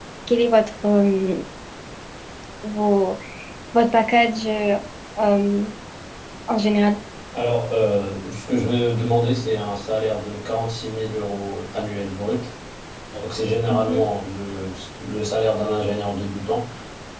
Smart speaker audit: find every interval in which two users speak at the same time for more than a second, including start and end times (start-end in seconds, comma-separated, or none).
none